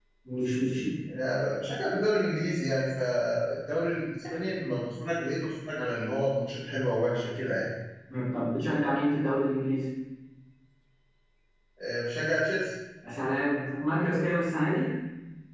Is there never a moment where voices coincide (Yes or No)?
Yes